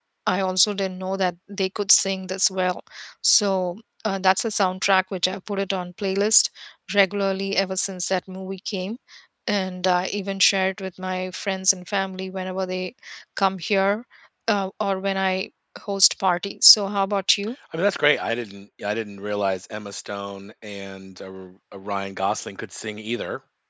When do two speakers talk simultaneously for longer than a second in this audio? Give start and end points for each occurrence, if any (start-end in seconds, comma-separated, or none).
none